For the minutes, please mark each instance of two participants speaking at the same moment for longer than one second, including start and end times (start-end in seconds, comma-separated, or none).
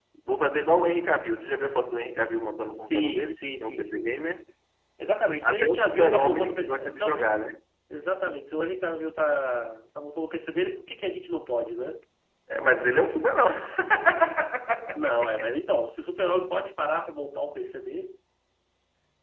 2.8-4.2, 5.4-7.3